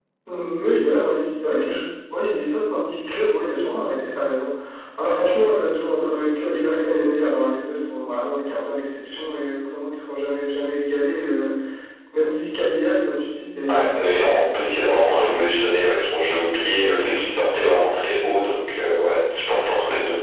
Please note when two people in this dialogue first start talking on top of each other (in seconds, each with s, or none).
13.7 s